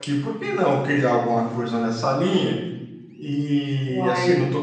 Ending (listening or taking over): listening